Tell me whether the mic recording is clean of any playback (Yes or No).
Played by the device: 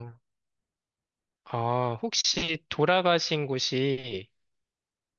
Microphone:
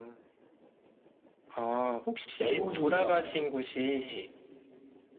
No